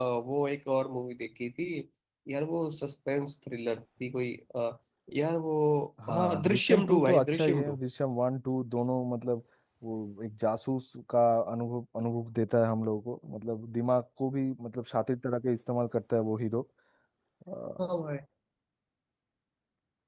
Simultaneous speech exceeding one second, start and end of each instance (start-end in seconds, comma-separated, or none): 6.2-7.8